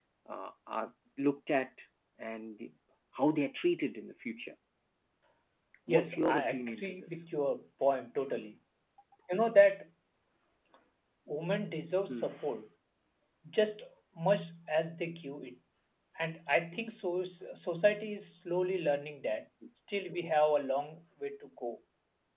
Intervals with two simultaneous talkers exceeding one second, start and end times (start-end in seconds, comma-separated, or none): 5.9-7.2